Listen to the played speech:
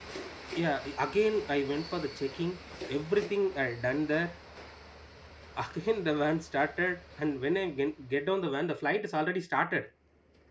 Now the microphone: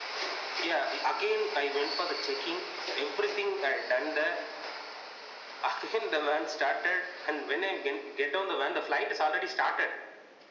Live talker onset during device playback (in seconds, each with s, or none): none